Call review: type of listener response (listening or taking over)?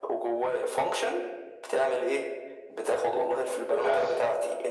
listening